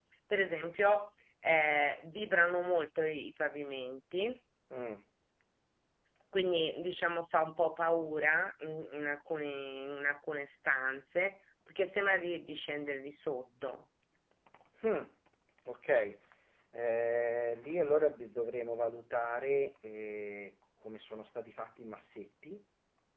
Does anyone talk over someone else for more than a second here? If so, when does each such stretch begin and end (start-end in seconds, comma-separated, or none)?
none